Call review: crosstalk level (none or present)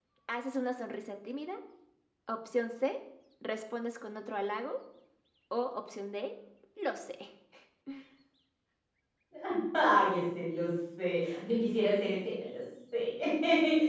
none